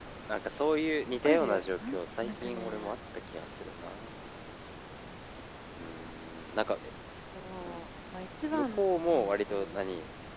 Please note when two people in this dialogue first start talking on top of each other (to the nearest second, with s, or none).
1 s